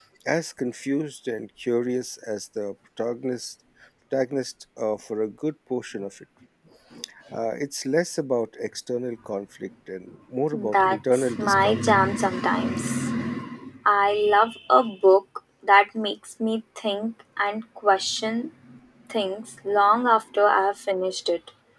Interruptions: present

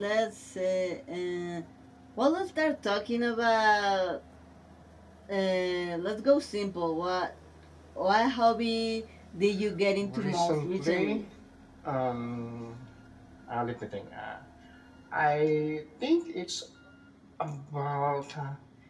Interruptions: present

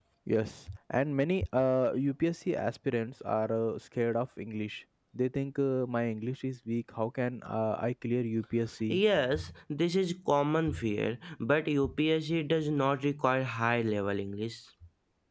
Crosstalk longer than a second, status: none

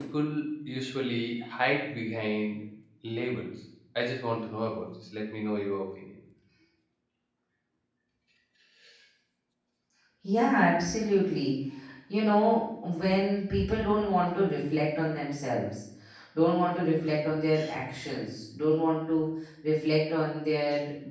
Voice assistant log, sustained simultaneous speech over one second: none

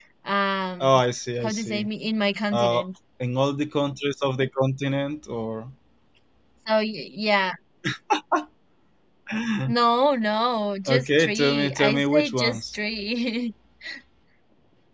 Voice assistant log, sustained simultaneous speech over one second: present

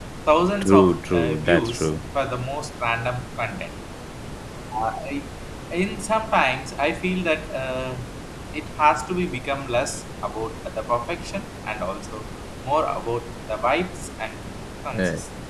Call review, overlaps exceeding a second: present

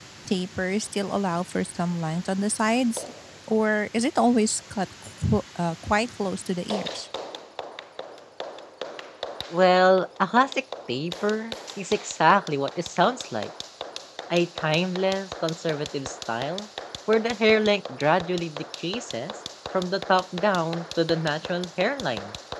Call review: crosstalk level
none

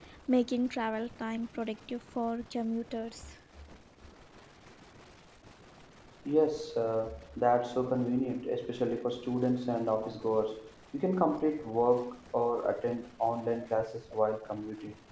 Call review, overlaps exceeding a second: none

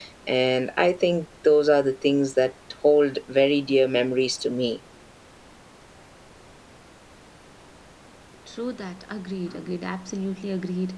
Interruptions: none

